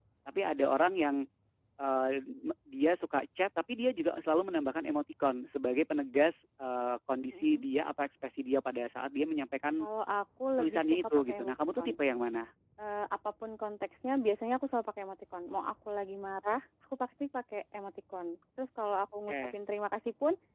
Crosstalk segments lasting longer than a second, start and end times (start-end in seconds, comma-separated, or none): 10.6-11.9